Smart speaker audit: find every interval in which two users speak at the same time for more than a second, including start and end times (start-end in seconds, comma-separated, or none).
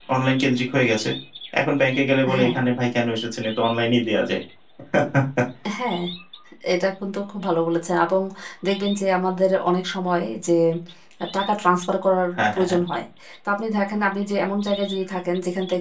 none